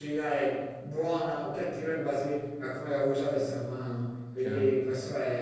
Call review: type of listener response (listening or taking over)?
listening